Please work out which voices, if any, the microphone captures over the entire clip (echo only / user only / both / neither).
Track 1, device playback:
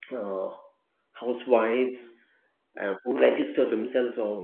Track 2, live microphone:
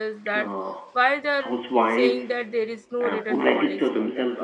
both